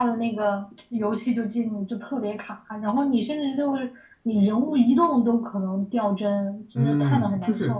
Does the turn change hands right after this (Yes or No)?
Yes